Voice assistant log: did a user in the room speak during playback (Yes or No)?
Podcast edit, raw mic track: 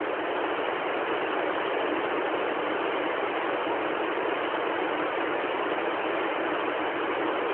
No